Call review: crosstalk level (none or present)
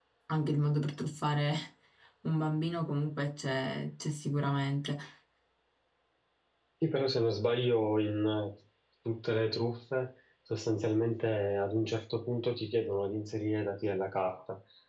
none